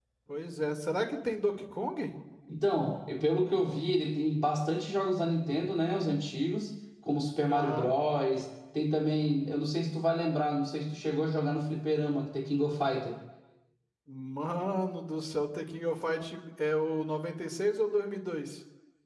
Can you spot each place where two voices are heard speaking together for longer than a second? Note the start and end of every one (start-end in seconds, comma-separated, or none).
none